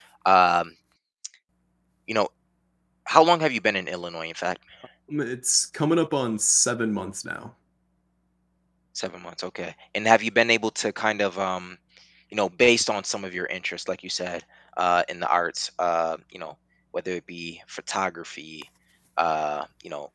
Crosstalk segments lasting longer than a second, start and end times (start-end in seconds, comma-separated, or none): none